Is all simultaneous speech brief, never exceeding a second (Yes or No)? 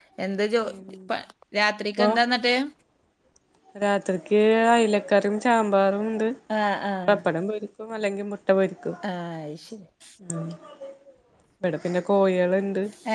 Yes